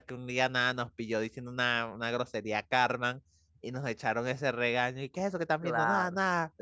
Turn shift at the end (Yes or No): No